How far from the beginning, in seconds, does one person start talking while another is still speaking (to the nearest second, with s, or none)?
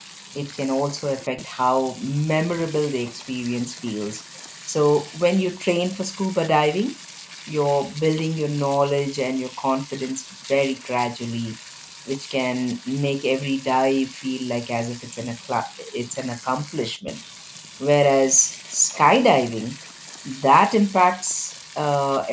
none